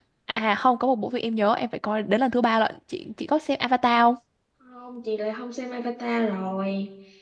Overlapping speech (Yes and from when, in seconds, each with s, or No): No